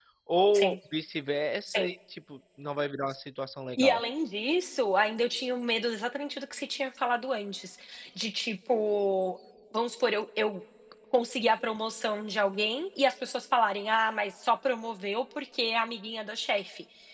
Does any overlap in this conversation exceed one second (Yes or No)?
No